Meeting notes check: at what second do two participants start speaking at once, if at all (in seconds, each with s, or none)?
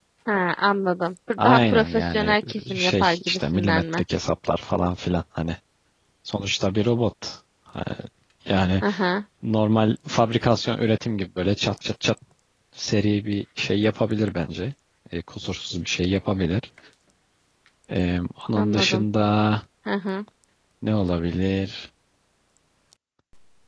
1.4 s